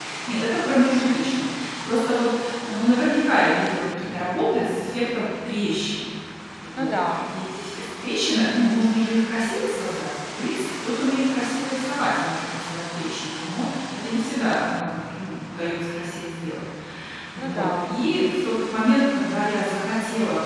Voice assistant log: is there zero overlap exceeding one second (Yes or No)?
Yes